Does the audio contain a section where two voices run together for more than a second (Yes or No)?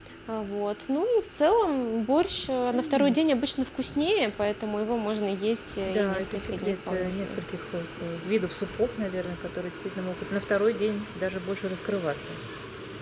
Yes